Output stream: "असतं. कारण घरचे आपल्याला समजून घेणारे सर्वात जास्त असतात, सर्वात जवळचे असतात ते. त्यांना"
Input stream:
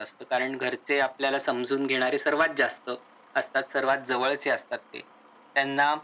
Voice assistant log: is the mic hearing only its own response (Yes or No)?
Yes